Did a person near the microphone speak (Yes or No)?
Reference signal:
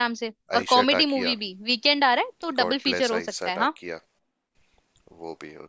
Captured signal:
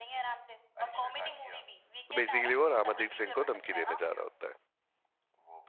Yes